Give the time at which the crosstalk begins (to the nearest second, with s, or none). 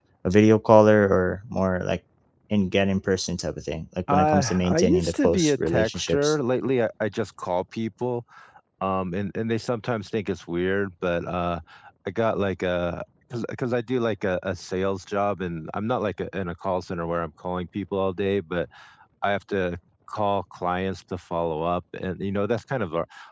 4 s